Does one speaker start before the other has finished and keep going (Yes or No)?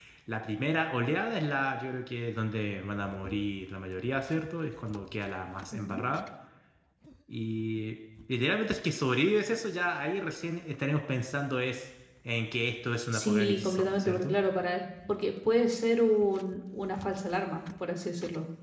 Yes